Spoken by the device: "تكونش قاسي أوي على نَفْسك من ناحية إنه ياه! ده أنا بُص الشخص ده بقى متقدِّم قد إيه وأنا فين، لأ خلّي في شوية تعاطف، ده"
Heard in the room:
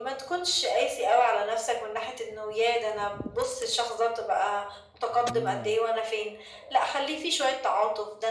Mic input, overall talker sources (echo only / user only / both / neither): both